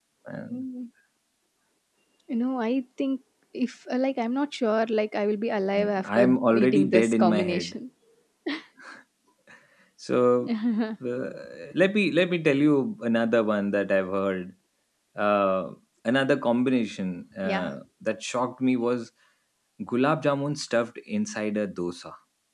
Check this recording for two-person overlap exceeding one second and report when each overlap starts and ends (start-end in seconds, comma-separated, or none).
6.0-7.8